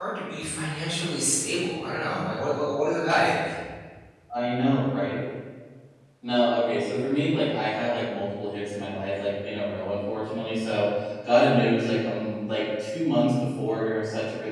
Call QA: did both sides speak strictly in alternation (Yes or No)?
Yes